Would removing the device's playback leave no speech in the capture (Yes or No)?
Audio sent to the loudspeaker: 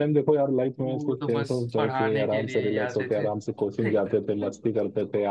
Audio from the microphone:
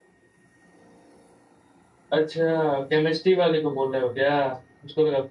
No